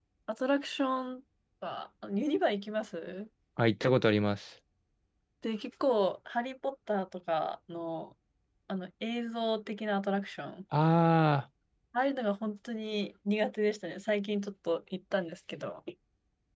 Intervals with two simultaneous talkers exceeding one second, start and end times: none

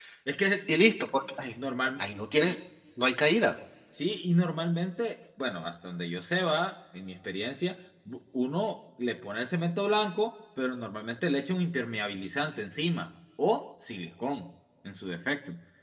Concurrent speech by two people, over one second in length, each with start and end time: none

